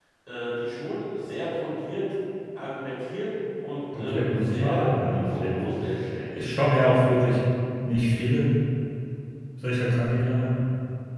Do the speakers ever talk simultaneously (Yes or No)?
Yes